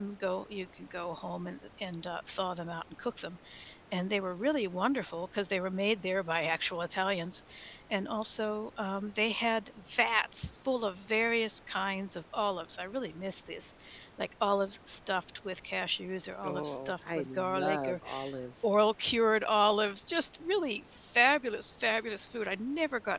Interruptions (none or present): present